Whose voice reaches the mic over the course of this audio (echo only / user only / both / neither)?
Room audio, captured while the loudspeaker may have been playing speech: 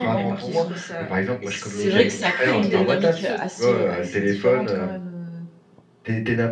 both